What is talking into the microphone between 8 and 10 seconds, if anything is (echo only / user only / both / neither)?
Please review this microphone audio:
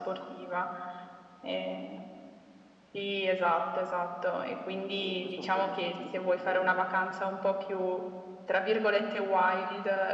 echo only